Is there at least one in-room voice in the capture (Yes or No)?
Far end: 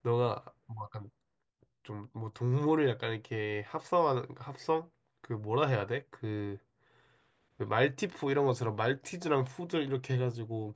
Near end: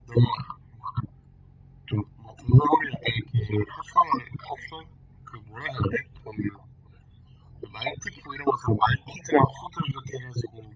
No